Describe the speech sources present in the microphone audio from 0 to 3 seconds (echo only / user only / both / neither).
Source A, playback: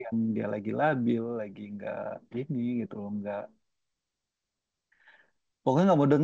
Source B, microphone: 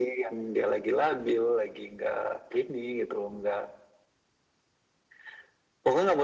echo only